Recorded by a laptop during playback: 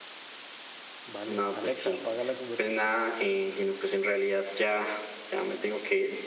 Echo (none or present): present